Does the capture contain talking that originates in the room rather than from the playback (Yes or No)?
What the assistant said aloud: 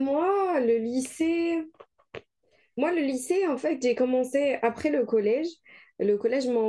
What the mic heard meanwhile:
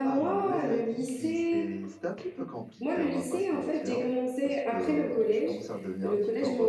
Yes